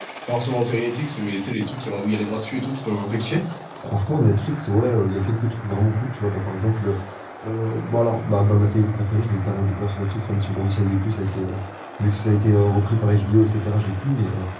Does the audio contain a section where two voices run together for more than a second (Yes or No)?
No